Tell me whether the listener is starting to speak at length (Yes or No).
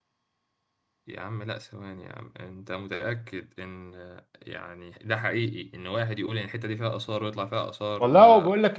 Yes